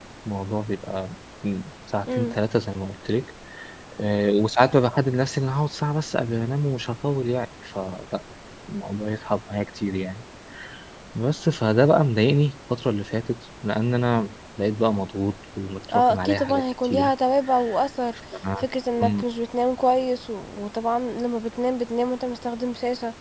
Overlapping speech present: Yes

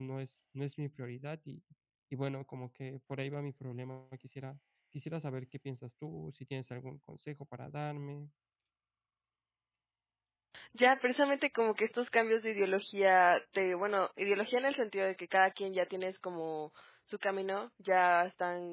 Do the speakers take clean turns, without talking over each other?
Yes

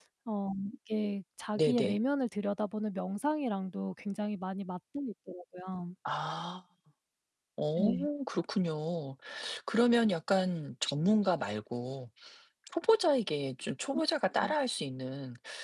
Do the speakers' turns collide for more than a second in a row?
No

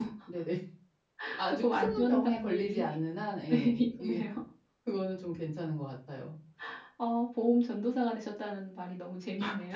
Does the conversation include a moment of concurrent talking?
Yes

